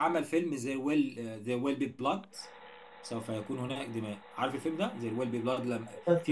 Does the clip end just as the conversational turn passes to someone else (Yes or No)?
No